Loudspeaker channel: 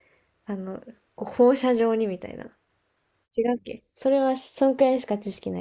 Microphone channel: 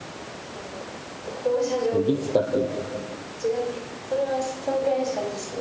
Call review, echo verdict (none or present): present